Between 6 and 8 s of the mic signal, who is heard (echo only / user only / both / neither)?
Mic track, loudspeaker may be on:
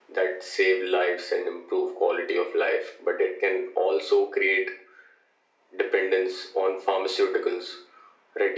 echo only